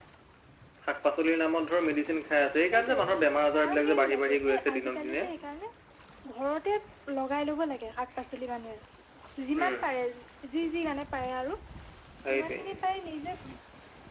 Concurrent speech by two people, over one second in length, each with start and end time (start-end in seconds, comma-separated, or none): 3.6-5.3